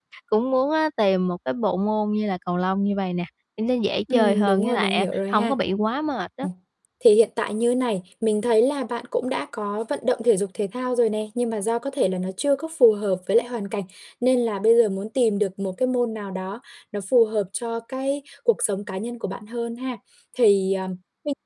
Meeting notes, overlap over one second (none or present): present